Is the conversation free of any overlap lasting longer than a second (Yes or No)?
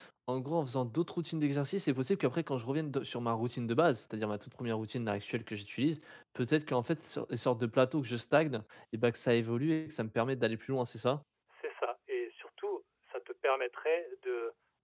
Yes